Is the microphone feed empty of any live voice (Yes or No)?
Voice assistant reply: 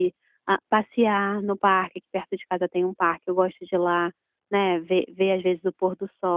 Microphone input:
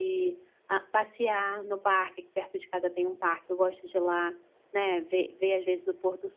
Yes